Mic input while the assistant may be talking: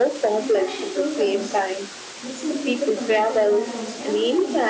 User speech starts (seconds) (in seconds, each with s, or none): 0.3 s